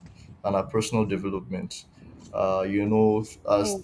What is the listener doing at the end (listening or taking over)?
listening